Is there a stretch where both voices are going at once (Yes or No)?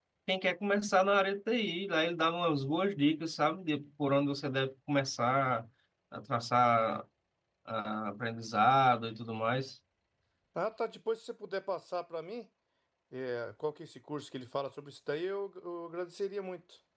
No